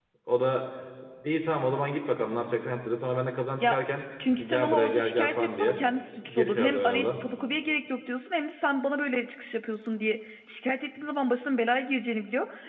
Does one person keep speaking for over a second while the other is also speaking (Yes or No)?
Yes